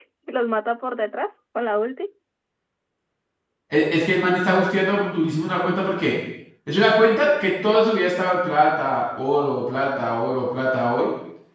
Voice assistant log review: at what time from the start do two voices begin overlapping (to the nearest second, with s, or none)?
none